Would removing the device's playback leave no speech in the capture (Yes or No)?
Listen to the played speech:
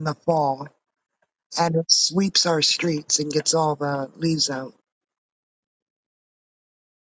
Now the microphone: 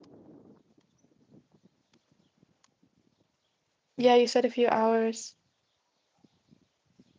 No